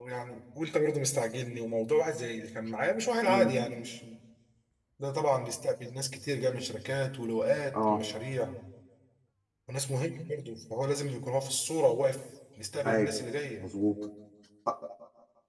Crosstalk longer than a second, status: none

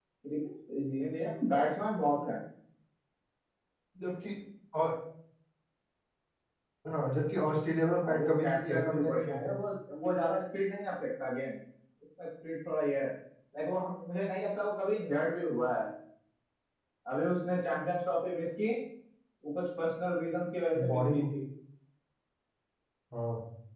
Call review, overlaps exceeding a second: present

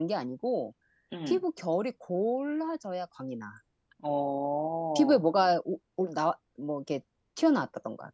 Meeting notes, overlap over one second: none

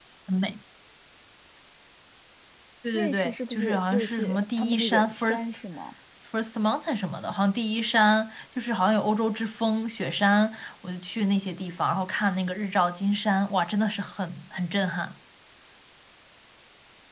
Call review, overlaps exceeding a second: present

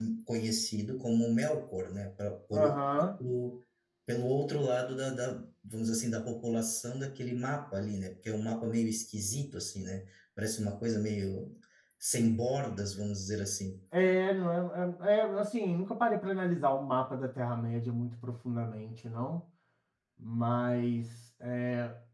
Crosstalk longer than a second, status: none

